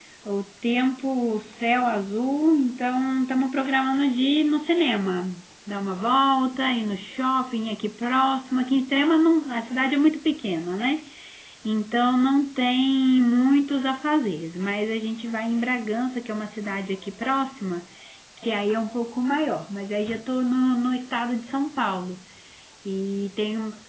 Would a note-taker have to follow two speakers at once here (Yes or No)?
No